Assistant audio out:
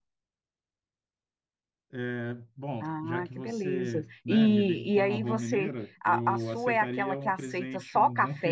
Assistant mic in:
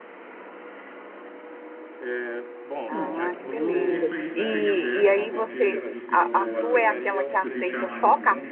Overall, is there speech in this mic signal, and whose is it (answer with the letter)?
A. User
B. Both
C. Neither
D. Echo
B